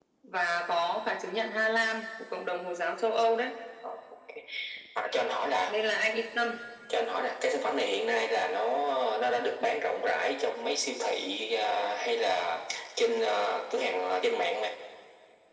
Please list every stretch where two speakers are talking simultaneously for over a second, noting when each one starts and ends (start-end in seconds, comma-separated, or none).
none